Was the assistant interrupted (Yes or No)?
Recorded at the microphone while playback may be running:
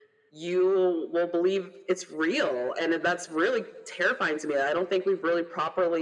No